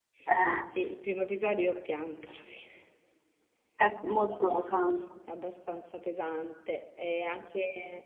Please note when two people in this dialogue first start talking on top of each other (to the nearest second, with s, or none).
none